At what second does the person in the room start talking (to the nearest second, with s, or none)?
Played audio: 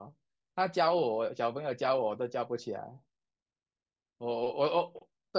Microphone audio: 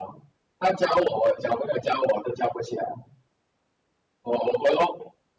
none